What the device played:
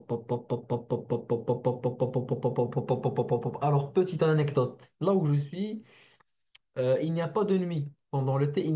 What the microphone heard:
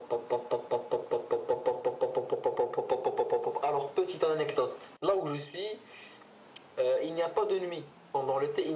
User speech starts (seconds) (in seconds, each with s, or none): none